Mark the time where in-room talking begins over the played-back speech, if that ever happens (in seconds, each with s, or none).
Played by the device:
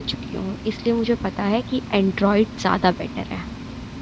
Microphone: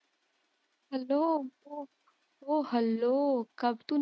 0.9 s